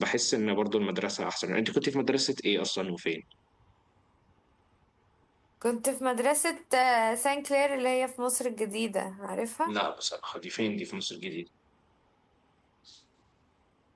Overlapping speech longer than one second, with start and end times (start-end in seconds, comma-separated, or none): none